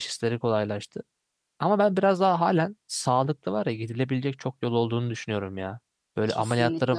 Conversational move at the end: listening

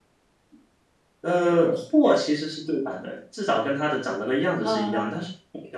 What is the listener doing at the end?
listening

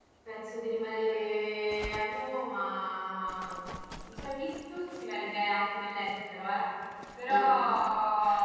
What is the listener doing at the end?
listening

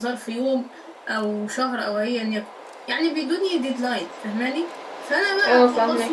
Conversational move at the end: listening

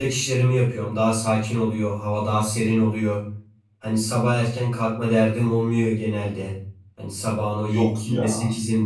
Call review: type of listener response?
listening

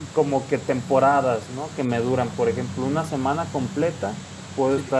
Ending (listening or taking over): listening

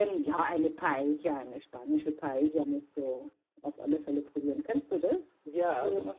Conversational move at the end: taking over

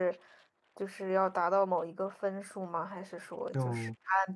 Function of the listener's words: taking over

